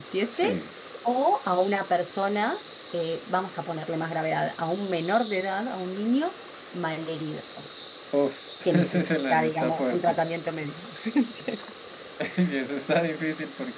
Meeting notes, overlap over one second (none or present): present